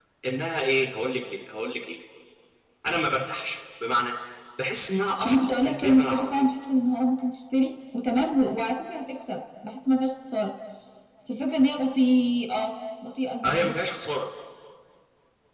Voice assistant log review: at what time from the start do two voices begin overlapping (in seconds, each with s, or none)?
5.2 s